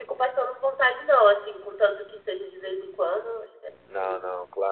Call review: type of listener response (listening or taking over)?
taking over